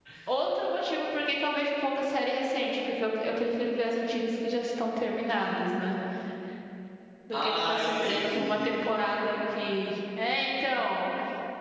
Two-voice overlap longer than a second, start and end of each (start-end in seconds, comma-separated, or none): 7.3-9.1